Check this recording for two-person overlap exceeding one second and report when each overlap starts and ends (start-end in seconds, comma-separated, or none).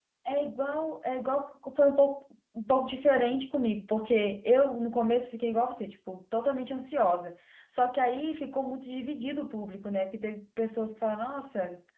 none